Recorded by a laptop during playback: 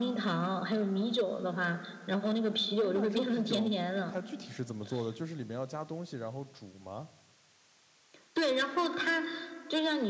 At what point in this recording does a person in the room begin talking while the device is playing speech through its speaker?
2.8 s

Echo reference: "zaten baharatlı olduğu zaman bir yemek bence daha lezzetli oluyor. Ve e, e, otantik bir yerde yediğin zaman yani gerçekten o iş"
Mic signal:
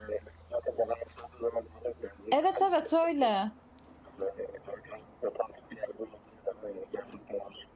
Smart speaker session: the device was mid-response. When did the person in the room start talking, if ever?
2.3 s

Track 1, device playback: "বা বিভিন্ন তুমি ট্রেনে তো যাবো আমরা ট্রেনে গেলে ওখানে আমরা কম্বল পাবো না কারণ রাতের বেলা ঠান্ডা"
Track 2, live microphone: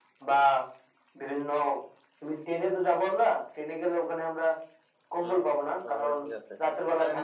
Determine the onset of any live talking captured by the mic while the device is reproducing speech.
5.2 s

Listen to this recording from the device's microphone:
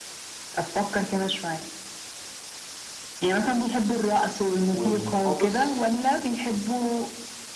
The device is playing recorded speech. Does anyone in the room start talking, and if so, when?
4.7 s

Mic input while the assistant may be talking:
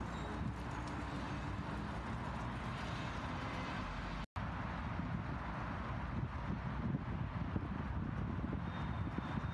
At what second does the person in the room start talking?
none

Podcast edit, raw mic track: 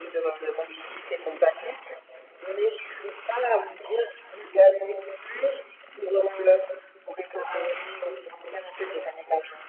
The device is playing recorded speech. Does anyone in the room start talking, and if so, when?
none

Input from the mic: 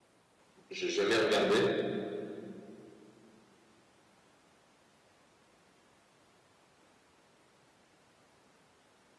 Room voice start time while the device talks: 0.7 s

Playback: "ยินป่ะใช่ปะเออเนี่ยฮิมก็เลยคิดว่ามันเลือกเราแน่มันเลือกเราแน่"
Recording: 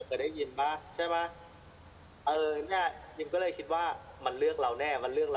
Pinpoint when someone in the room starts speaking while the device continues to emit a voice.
none

